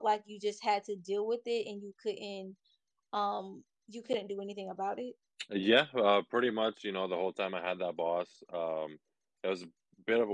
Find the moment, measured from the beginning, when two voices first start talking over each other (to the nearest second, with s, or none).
none